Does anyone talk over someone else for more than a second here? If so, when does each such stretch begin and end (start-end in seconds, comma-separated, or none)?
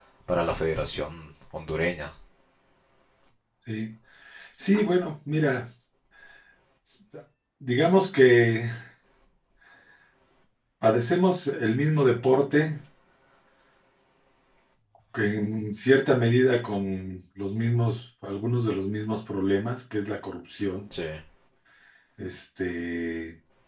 none